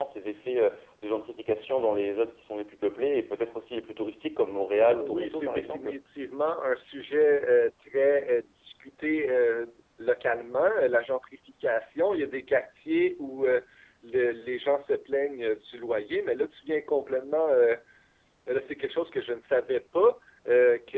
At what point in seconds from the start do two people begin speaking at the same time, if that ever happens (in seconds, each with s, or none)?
4.7 s